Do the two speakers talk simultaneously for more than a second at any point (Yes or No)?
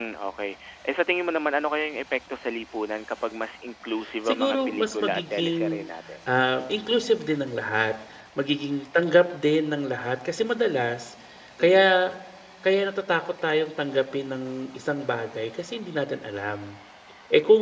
Yes